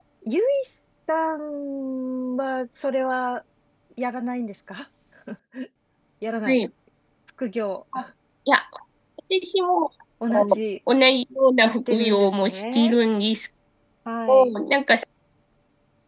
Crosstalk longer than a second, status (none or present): present